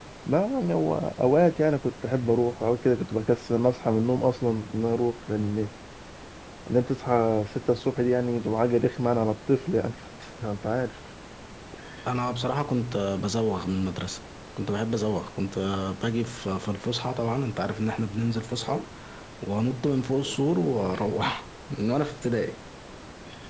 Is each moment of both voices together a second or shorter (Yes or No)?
Yes